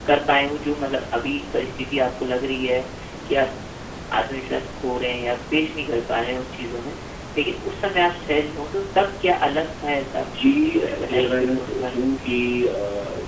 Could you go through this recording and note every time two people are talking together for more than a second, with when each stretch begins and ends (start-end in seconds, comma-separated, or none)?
10.8-12.1